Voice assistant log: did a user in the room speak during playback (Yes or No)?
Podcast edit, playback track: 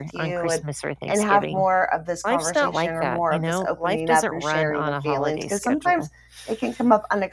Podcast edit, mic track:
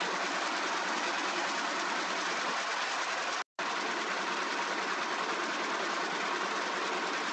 No